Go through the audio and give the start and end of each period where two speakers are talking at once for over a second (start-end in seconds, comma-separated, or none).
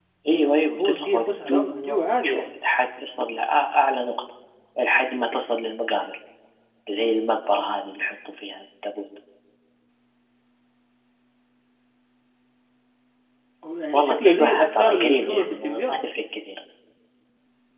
0.8-2.4, 13.9-16.0